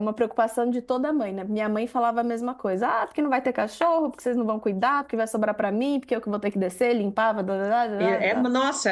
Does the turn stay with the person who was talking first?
No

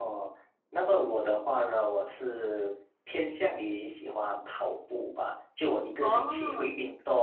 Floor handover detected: No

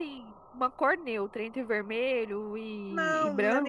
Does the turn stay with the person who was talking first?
No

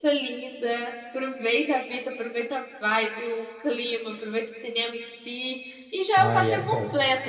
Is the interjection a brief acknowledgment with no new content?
Yes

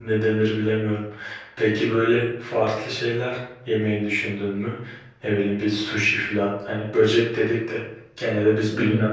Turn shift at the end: No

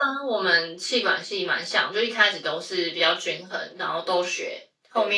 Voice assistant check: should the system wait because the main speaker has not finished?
Yes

